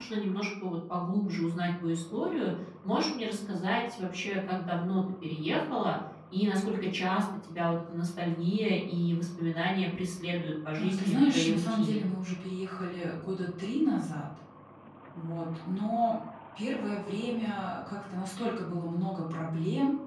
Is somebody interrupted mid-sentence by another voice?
Yes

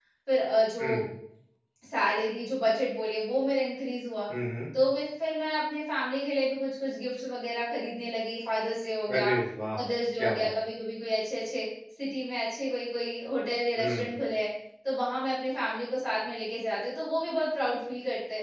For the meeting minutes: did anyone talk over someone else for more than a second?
No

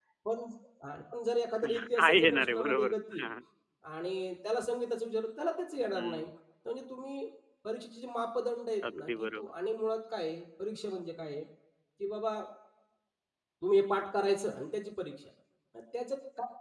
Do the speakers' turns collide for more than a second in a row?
Yes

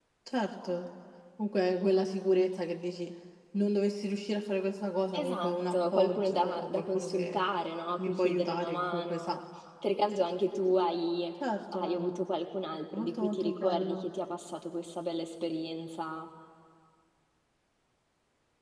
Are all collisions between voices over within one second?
No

